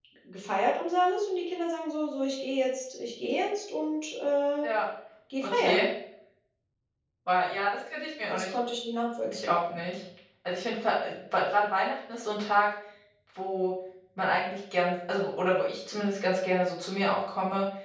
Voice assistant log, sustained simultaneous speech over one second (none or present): none